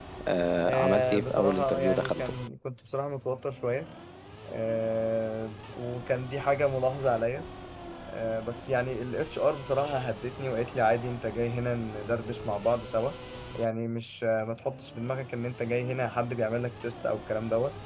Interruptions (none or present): present